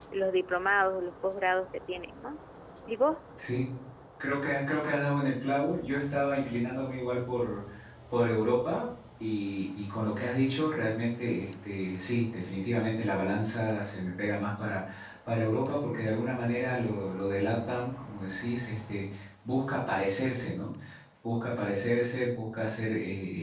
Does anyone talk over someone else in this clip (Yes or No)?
No